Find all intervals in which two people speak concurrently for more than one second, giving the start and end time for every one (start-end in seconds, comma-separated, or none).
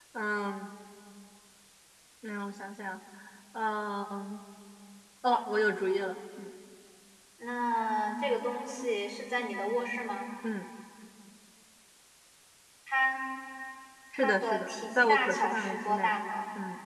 14.2-16.2